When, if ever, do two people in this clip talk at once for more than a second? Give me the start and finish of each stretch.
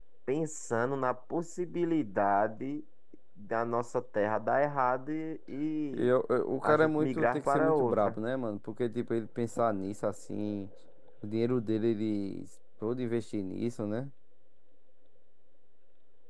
6.6-8.2

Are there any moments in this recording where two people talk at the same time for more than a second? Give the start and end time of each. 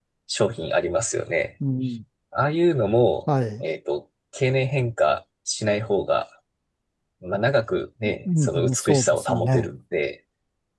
8.4-9.7

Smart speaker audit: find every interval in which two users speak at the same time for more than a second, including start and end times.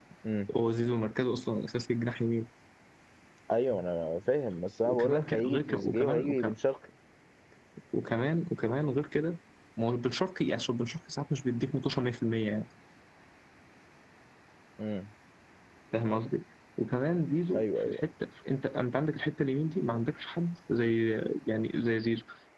4.8-6.5

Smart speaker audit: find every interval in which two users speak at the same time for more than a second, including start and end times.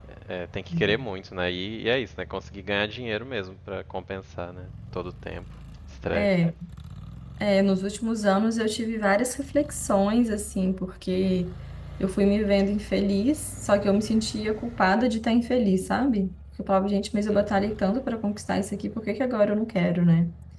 none

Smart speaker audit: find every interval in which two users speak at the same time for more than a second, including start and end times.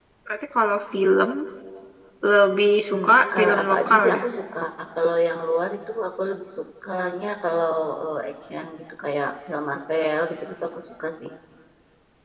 2.9-4.2

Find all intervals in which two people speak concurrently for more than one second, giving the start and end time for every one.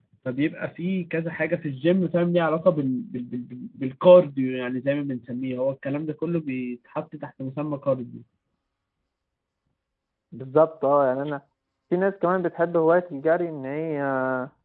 none

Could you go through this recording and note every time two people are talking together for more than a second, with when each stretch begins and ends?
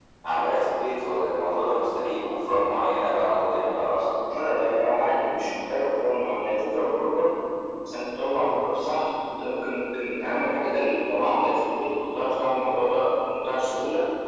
none

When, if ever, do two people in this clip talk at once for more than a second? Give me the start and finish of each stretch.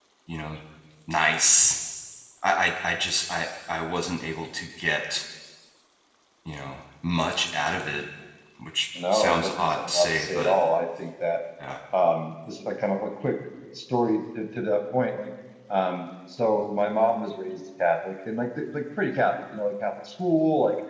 9.1-10.5

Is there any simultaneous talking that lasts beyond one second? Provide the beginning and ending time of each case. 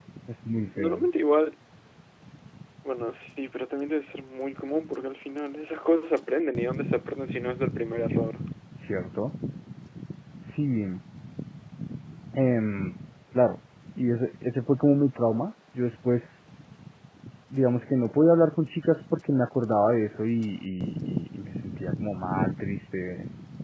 none

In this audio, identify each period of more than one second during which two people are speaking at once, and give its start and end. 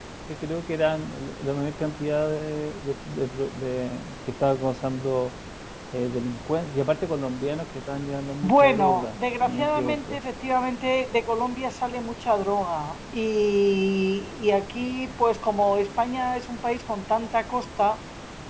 8.4-10.2

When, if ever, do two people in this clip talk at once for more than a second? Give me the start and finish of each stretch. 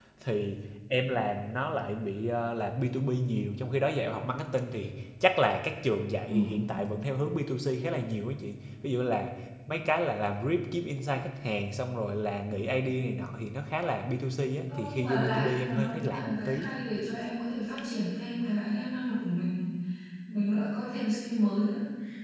14.7-16.7

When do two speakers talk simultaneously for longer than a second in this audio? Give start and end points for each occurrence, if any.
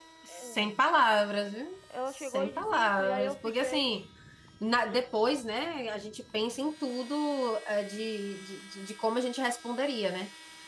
2.1-3.8

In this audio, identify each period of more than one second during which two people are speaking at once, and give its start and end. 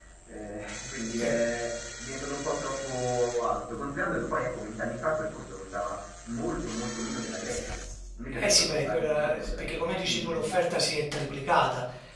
8.3-10.5

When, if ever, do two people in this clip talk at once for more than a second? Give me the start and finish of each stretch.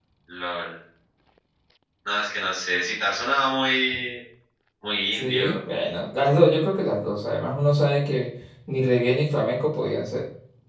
none

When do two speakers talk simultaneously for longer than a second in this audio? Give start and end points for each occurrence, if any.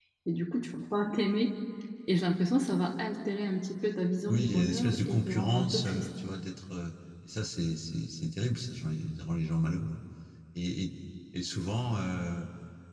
4.3-6.1

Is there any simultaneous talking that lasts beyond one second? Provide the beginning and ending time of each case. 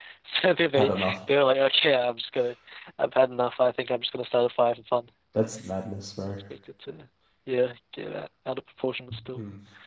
none

